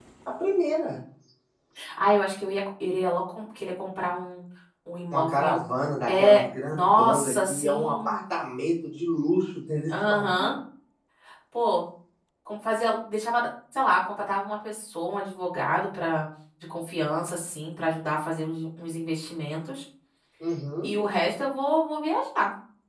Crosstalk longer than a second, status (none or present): present